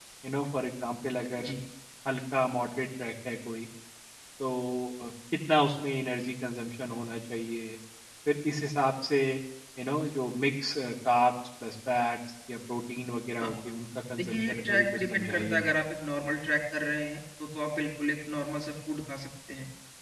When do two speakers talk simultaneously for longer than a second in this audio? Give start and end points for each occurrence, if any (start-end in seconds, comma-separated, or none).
14.2-15.7